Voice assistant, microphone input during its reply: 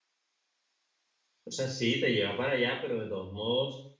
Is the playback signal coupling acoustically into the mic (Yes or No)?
No